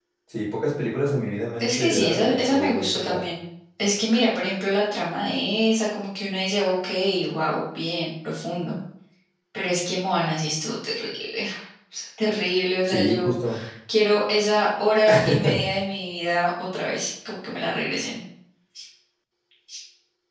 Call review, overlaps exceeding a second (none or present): present